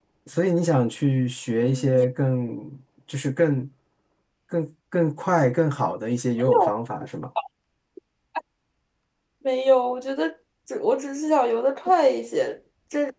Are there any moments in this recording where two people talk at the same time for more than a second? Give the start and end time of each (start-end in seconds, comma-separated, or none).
none